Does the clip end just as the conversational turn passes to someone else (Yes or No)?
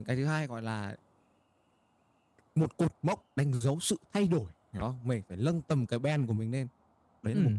Yes